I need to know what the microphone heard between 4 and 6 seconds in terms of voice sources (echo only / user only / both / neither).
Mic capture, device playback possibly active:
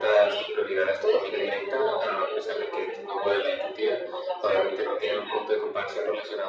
echo only